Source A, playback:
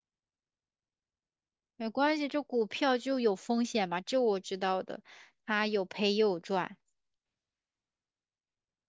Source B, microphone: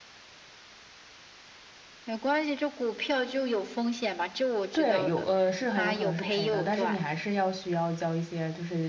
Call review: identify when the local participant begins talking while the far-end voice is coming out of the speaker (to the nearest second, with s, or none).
5 s